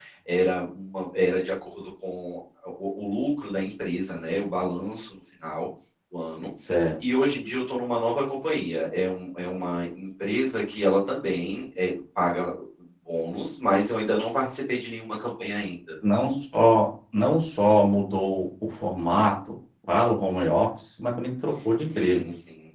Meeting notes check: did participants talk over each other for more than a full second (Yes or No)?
No